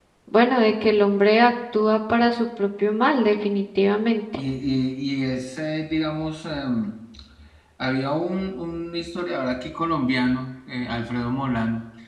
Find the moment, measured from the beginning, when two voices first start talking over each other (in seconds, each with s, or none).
none